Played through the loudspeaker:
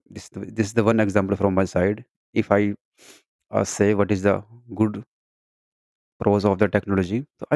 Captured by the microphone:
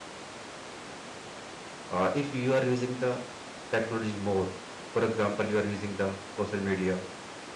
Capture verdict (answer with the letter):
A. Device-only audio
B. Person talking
B